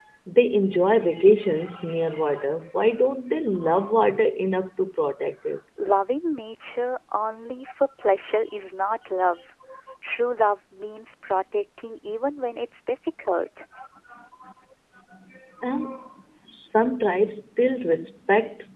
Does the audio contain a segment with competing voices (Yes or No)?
No